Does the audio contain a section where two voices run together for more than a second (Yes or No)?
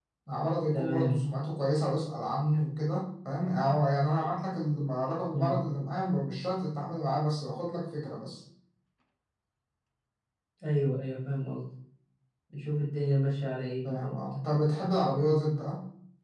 No